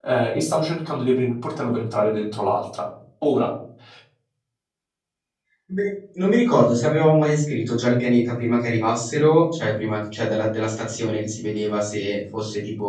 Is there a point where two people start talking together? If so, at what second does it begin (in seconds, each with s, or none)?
none